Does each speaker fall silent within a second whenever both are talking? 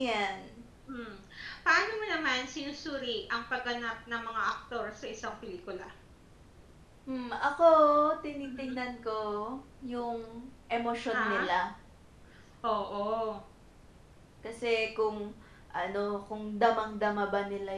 Yes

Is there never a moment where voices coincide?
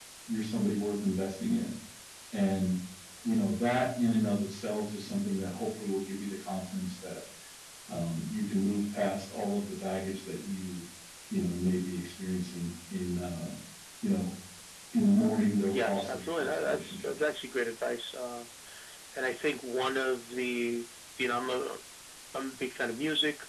No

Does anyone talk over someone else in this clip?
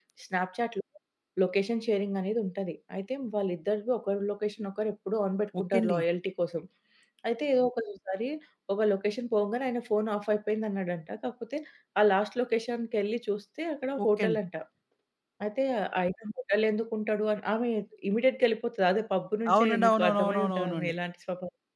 Yes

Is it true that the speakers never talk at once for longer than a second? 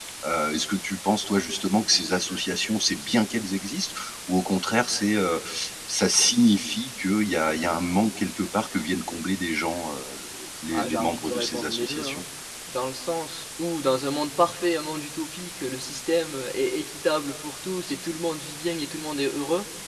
No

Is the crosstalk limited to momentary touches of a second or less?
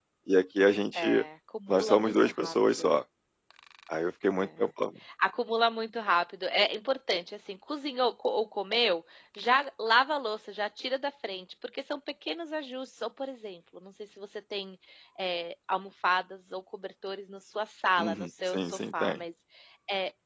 No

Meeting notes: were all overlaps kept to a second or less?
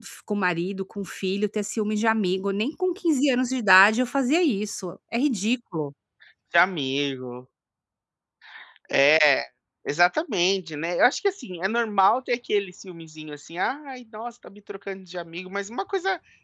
Yes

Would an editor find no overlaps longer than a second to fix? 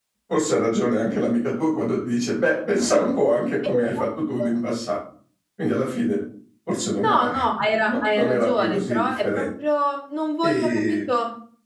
No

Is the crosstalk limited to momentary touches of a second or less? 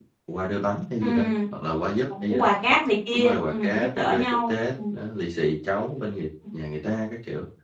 No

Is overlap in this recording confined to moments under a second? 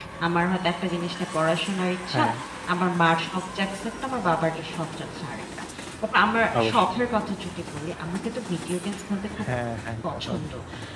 Yes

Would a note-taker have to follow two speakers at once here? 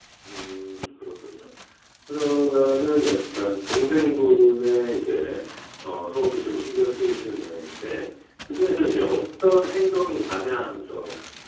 No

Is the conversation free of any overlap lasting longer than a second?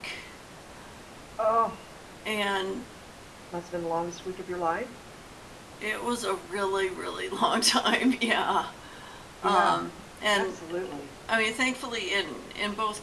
Yes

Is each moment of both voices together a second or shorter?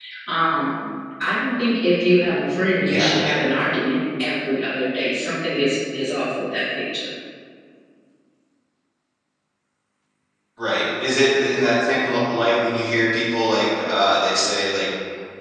Yes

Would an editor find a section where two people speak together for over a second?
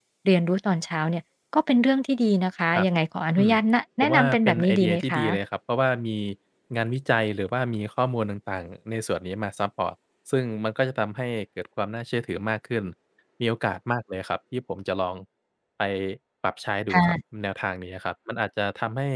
Yes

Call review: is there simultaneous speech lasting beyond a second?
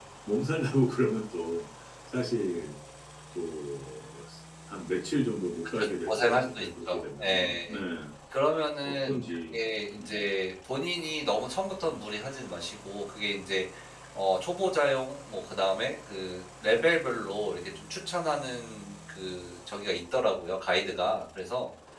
Yes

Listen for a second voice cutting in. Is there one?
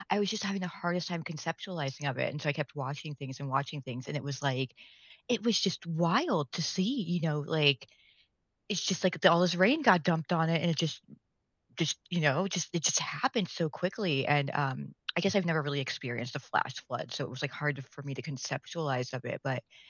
No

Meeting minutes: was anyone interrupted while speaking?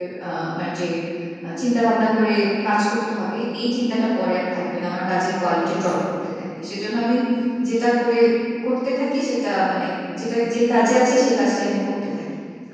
No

